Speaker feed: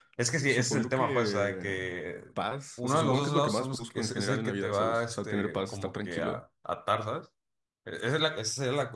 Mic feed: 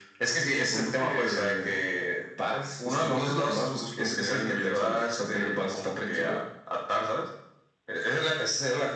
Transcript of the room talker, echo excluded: none

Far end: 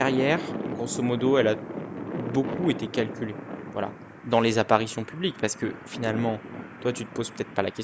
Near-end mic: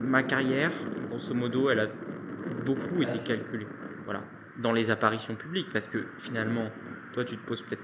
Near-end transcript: Bah, tu,

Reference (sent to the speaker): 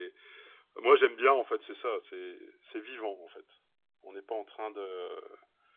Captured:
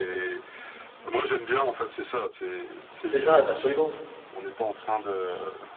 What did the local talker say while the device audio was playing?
C'est ça, absolument.

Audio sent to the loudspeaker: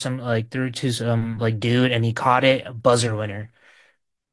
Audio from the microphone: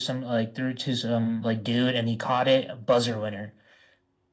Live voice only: none

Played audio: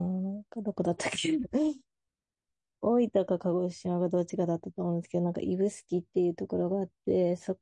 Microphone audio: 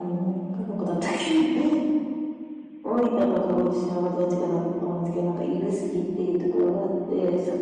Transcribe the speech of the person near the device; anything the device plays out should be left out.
none

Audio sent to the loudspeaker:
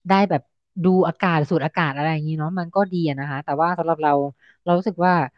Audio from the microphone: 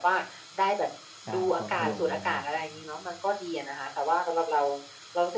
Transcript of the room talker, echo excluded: ใช่กลัวมันถล่มอะไรเงี้ย

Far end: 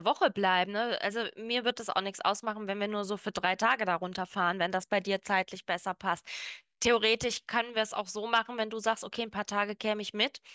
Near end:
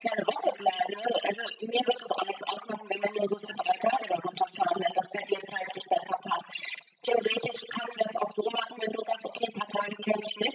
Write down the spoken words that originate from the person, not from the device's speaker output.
none

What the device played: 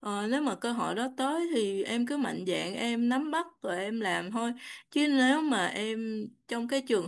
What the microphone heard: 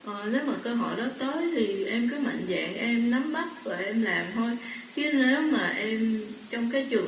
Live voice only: none

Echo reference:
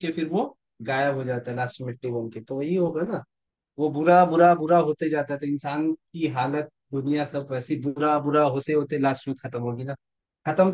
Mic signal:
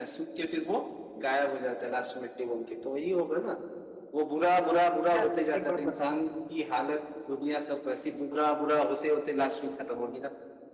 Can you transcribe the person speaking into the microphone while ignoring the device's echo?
यार एक बात बताओ

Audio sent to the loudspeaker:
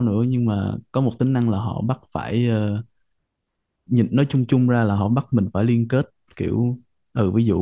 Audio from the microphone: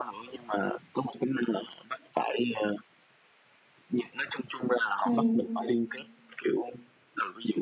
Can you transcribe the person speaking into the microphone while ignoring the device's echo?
ừ

